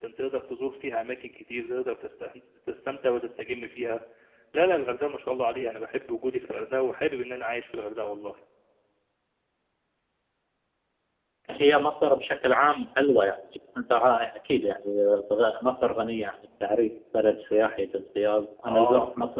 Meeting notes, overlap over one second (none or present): none